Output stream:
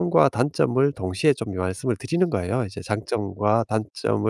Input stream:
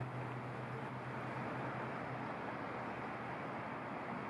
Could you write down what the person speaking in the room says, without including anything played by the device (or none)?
none